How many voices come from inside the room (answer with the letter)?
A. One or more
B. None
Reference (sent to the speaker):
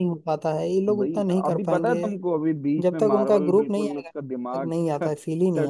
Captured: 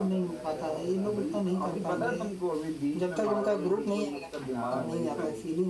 A